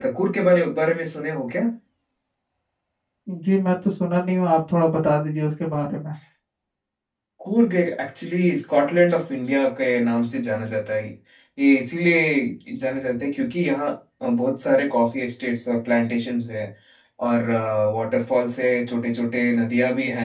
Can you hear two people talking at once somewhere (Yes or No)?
No